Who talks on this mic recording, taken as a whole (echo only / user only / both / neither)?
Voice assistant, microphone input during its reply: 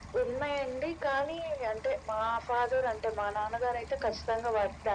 echo only